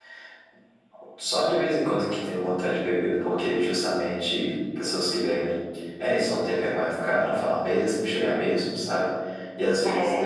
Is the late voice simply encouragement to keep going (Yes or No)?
Yes